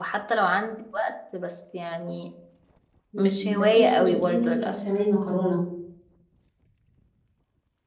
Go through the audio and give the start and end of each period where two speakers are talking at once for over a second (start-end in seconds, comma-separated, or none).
3.2-4.8